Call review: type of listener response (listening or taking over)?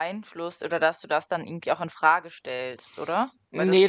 taking over